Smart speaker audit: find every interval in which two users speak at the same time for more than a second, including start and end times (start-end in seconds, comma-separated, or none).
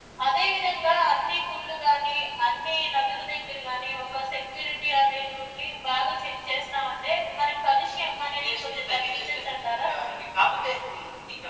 8.1-9.9